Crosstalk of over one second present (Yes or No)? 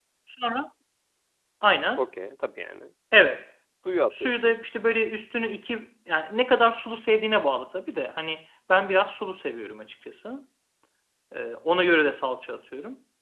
No